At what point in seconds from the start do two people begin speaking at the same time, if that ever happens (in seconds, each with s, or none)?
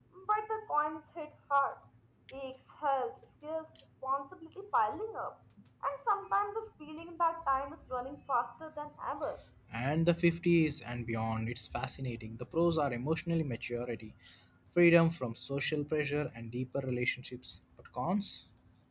none